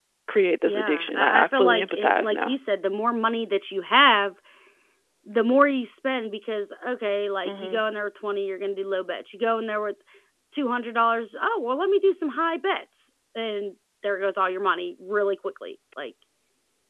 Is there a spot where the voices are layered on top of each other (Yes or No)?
Yes